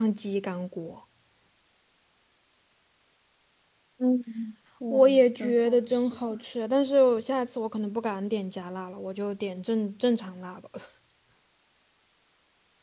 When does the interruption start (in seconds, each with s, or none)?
4.9 s